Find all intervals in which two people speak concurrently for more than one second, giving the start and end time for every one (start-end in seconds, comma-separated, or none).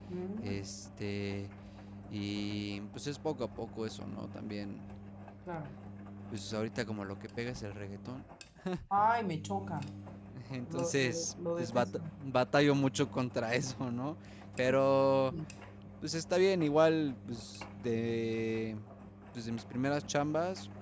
10.7-12.0